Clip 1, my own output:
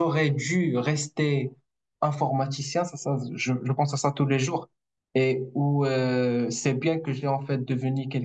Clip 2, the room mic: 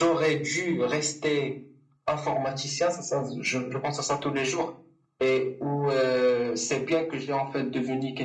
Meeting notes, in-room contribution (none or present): none